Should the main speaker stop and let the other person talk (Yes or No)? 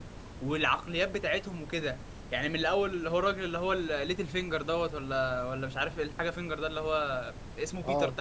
No